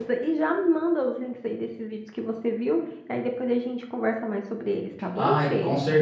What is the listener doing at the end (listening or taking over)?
taking over